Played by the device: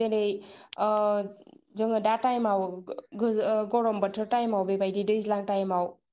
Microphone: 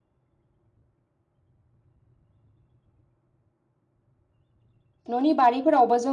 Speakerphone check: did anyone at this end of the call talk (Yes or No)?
Yes